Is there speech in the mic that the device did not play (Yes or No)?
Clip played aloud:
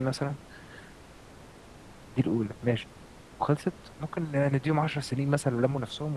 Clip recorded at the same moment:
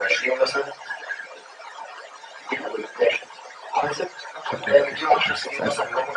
Yes